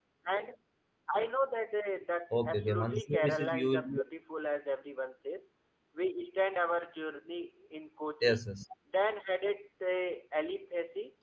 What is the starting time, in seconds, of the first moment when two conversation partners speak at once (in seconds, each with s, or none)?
2.3 s